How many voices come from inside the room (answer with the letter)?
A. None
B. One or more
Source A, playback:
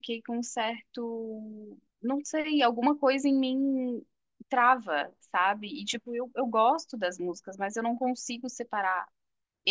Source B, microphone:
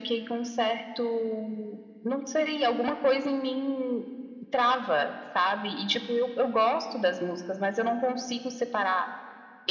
A